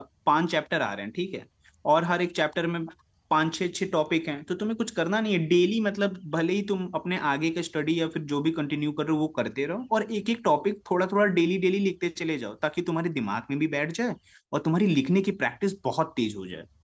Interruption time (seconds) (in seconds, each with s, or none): none